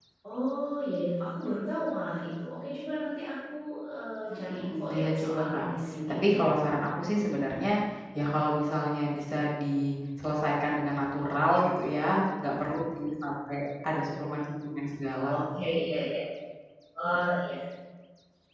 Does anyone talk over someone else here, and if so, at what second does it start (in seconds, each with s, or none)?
4.3 s